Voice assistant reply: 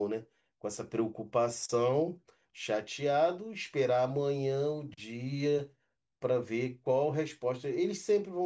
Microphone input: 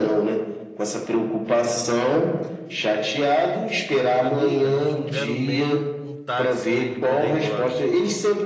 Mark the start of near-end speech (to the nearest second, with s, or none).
4 s